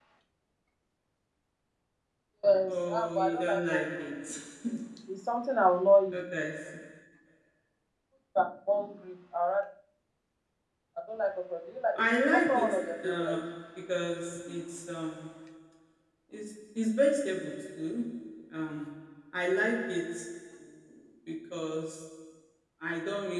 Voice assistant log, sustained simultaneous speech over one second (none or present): present